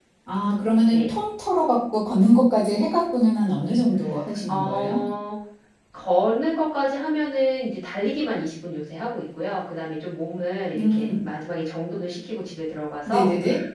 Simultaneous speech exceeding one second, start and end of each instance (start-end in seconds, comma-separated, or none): none